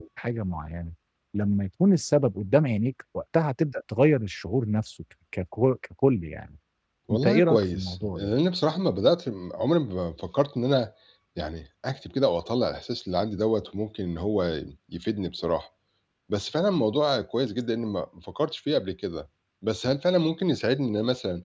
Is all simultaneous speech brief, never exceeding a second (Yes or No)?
No